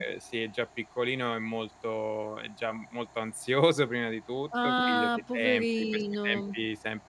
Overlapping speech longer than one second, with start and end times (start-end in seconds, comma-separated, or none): 4.6-6.6